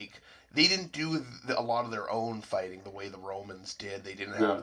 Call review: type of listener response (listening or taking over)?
listening